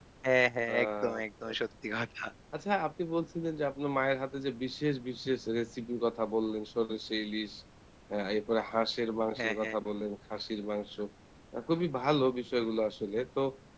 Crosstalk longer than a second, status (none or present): none